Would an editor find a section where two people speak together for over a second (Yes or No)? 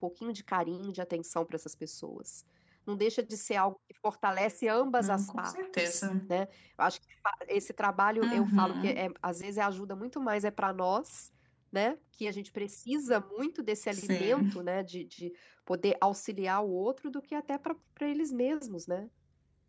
Yes